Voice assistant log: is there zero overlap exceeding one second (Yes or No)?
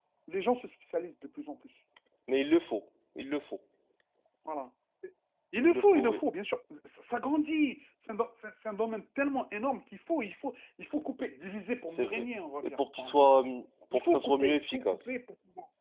No